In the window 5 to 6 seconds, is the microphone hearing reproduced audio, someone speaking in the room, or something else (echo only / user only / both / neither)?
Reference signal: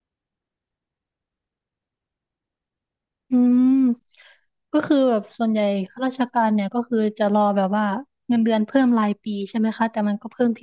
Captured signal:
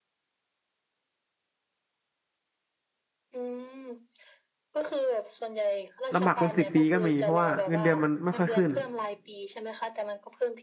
echo only